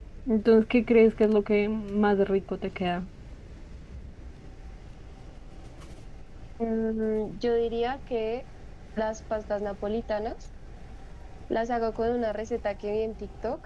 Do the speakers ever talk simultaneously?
No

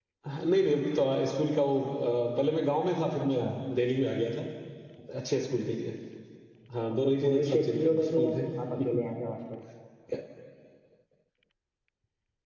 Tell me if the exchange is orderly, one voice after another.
No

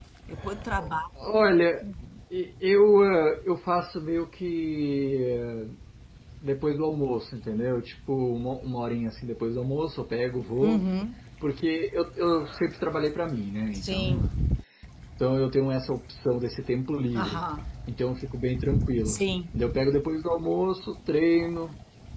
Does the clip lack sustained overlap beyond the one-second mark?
Yes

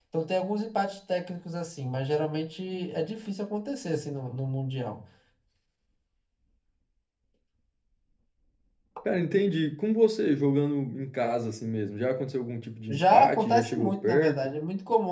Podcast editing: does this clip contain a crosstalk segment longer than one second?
Yes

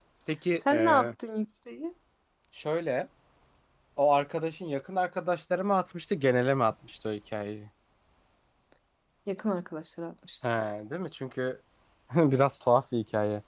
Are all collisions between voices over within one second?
Yes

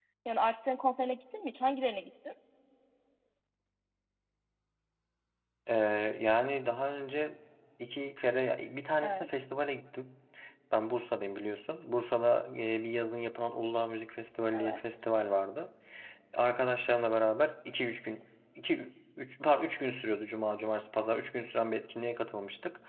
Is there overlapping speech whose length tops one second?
No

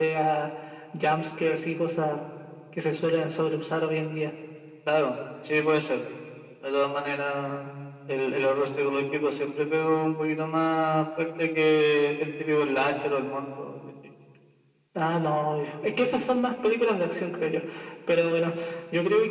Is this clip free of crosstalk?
Yes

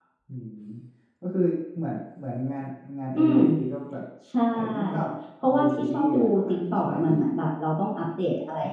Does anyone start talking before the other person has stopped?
Yes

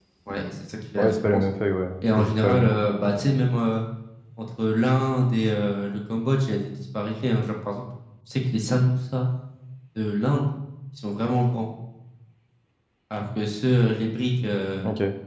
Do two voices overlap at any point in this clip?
Yes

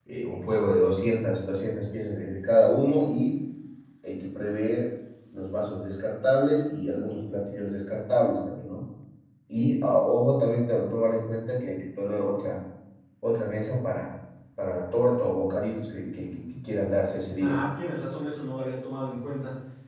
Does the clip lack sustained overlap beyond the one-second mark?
Yes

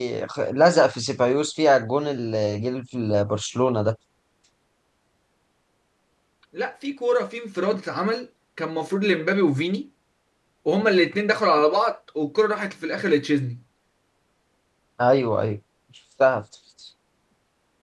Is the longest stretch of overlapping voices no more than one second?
Yes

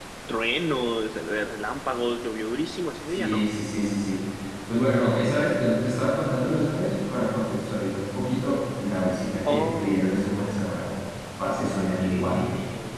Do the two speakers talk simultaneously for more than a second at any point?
Yes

